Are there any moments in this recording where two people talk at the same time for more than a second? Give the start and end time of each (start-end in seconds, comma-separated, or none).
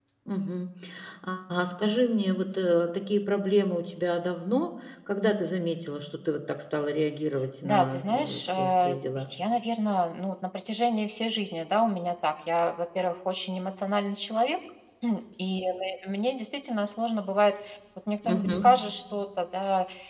7.6-9.3